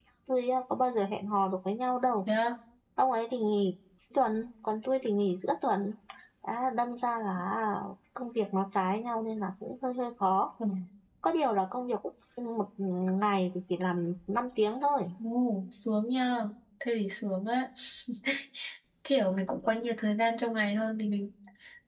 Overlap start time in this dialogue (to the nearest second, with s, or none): none